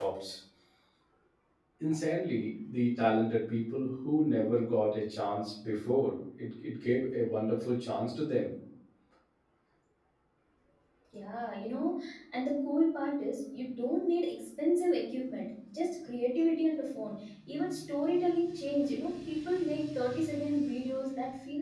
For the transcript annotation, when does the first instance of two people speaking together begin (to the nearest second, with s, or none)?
none